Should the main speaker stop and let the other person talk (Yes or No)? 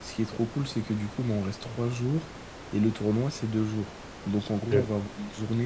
No